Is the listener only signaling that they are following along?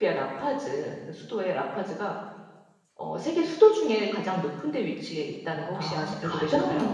No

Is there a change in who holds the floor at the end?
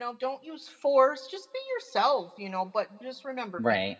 No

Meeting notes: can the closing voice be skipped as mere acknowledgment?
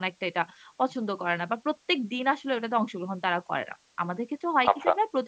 Yes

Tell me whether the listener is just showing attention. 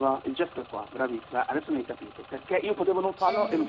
Yes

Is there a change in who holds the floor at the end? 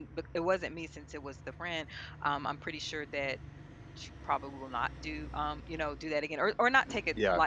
No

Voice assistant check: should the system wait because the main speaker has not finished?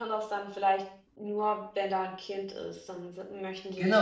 No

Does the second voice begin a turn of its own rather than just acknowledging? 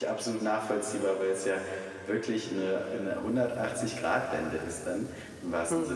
No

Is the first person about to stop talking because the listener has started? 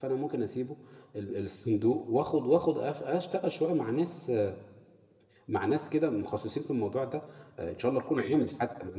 No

